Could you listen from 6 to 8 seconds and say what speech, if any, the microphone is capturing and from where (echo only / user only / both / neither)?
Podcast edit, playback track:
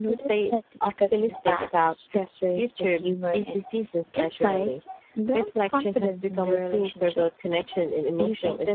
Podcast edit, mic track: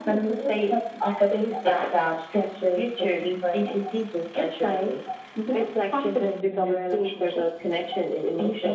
echo only